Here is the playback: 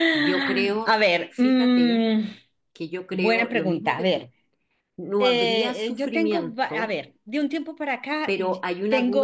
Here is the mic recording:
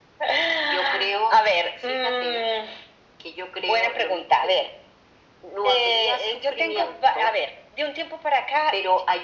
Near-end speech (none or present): none